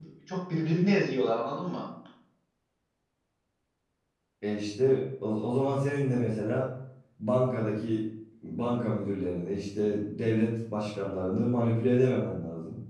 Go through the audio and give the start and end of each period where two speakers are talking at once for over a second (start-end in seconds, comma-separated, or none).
none